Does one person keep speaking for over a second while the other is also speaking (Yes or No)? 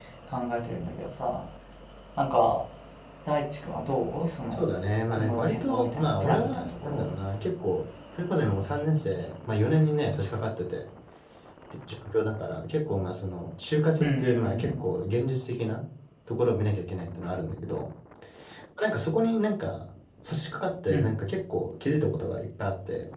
Yes